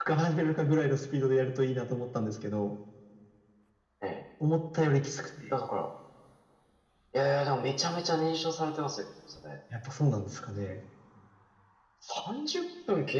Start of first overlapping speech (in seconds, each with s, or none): none